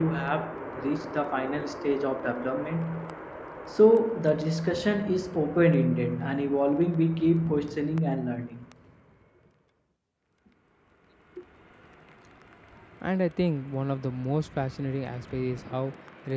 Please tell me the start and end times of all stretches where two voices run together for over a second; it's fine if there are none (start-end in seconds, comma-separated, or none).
none